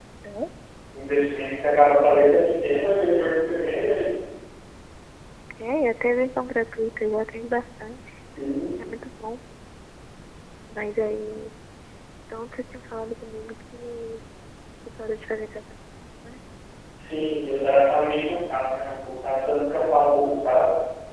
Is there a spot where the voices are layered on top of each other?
No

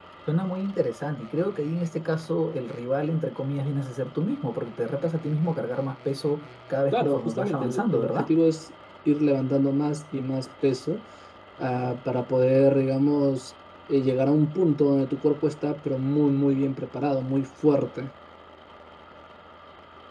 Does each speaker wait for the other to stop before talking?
No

